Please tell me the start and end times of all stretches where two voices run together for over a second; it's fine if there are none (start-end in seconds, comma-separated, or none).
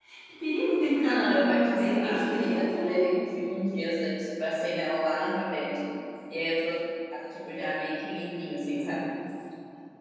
1.0-3.0